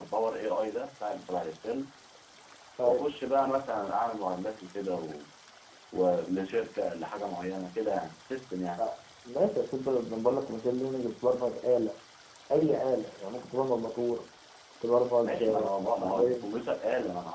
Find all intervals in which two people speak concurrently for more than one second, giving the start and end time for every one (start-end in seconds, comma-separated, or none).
15.2-16.4